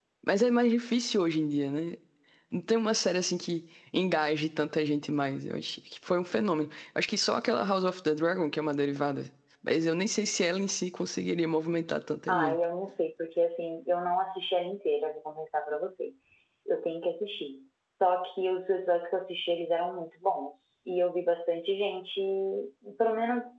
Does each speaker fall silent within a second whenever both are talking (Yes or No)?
Yes